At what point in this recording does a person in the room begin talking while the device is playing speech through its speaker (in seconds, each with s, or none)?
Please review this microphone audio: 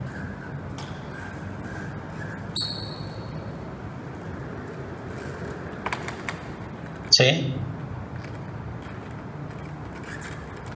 7.1 s